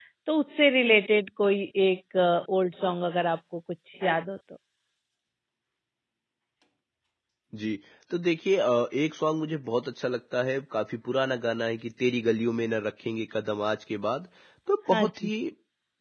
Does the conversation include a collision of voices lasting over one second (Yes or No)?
No